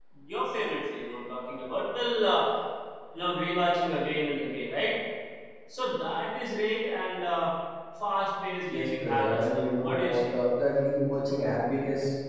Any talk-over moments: Yes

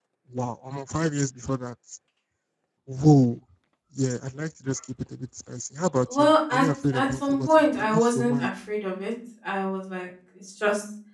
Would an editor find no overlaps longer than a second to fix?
No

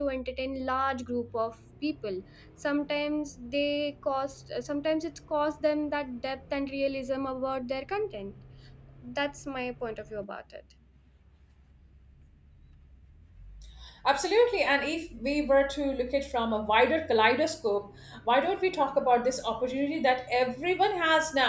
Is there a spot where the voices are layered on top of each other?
No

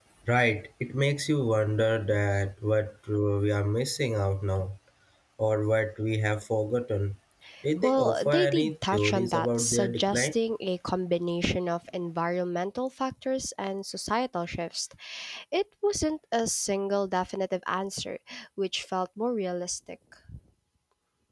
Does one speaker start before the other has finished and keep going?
Yes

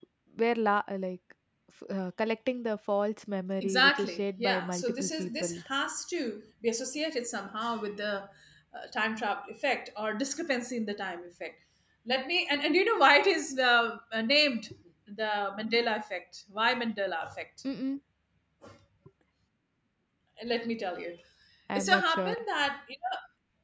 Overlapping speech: Yes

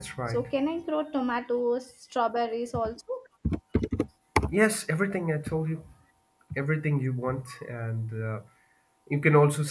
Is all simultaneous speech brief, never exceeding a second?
Yes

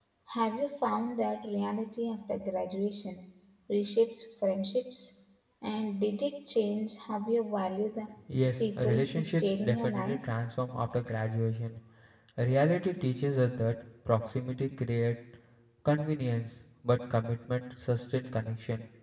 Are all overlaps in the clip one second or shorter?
No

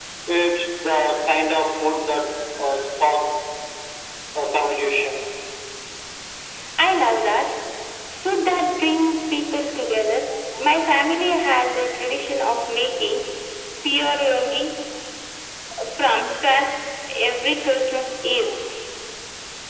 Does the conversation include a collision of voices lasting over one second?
No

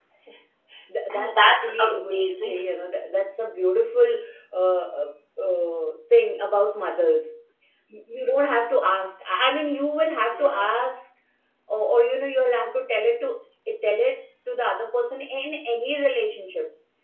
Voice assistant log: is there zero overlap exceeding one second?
No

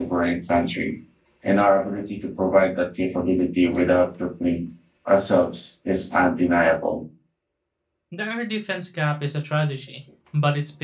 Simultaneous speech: No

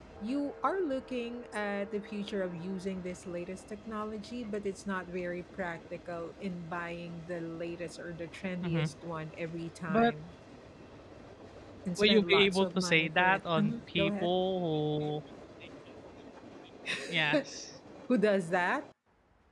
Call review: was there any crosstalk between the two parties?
Yes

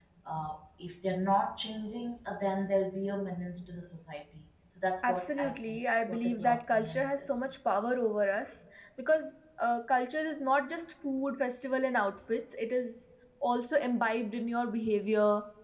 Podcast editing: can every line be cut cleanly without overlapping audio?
No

